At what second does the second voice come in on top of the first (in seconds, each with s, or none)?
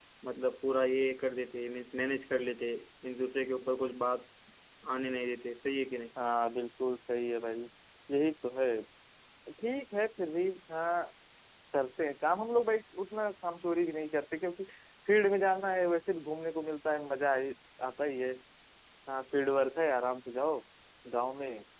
none